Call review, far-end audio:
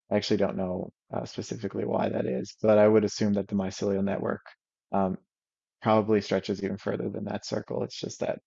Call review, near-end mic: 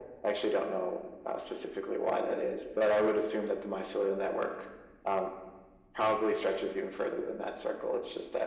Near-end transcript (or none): none